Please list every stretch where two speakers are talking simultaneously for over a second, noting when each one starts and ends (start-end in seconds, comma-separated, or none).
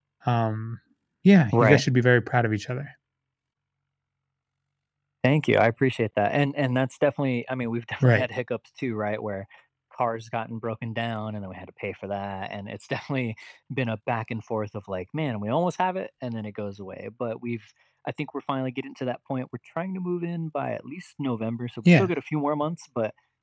none